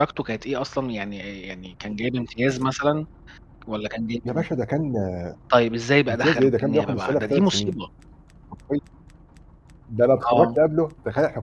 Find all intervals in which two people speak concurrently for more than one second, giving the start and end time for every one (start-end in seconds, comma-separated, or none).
6.1-7.8